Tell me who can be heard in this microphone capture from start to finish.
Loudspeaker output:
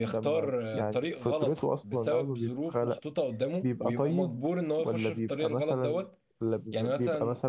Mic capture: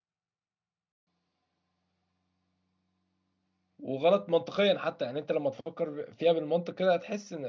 user only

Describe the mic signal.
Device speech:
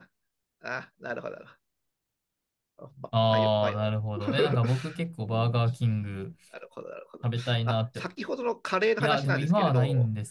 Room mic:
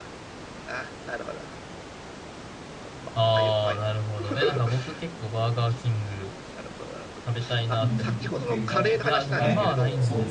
both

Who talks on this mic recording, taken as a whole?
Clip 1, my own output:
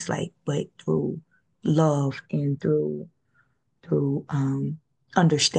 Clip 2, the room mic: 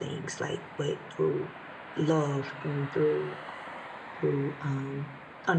echo only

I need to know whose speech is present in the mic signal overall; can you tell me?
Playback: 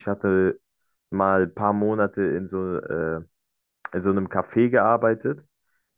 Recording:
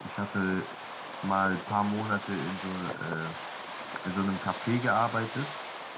echo only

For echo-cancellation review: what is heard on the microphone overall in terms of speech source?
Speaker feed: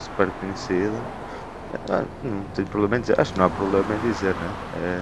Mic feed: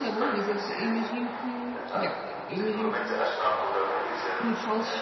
both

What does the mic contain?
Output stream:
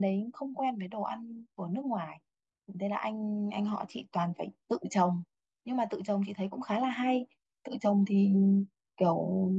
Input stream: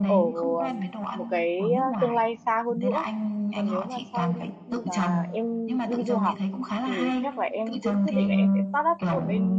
both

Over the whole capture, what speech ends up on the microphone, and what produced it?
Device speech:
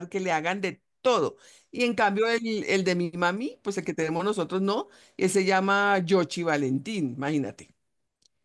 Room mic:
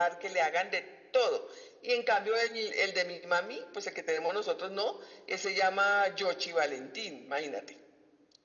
echo only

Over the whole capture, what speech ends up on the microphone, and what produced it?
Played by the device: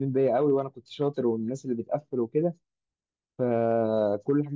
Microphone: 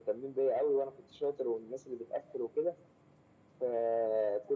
echo only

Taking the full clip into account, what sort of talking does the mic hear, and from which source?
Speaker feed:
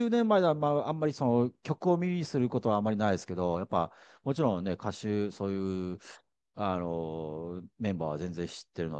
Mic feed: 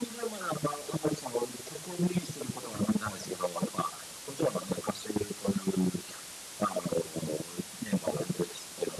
echo only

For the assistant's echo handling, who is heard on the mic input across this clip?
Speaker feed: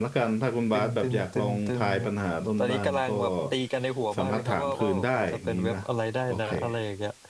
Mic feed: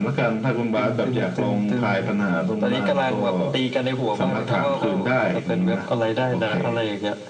echo only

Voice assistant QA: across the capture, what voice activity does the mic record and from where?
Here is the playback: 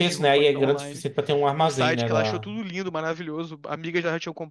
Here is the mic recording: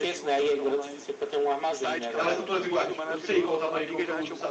both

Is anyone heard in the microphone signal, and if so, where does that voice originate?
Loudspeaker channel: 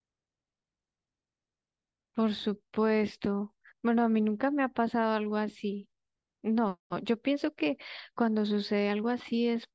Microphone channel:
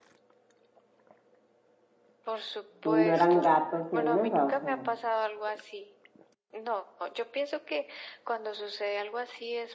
both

